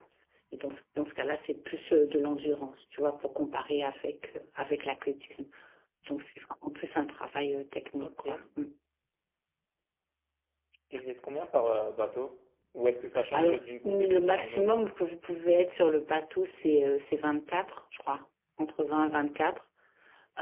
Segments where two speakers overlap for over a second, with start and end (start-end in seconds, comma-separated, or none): 13.3-14.8